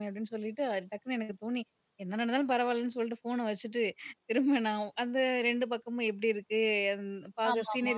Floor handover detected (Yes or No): No